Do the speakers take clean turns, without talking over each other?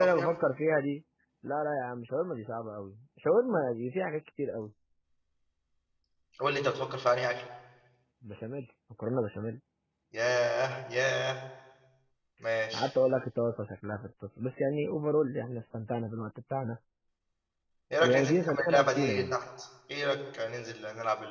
No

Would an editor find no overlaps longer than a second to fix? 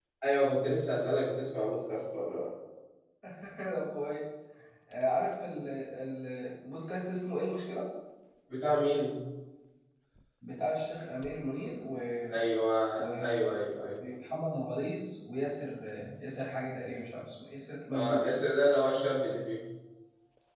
Yes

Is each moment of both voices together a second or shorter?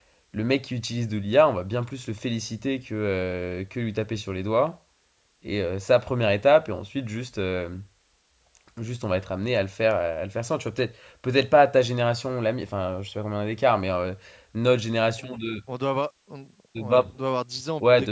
Yes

